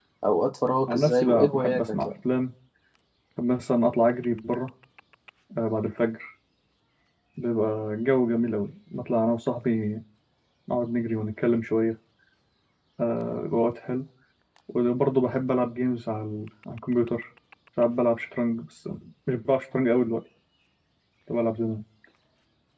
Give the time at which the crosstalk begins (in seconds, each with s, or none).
0.9 s